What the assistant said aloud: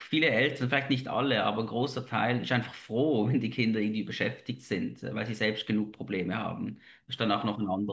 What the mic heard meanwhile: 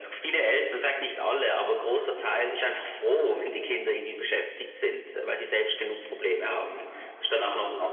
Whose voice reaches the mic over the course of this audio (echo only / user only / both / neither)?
echo only